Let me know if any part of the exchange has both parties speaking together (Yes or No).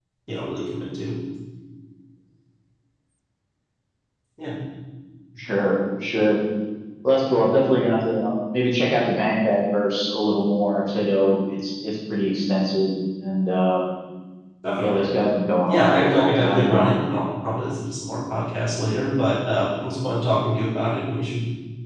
Yes